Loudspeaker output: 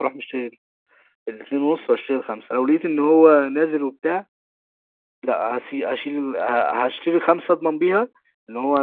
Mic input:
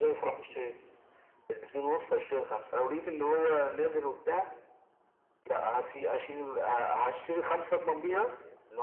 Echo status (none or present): present